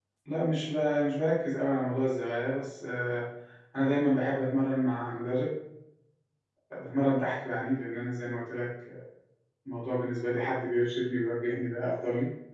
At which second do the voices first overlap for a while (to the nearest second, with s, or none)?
none